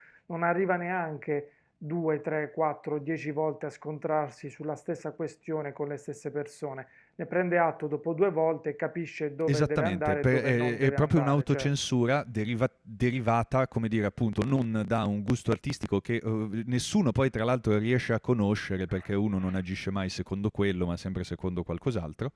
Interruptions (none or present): present